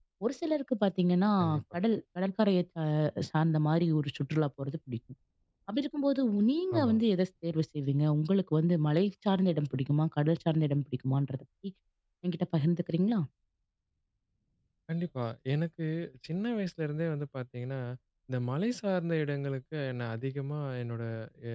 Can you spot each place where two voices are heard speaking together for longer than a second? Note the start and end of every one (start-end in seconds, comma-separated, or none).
none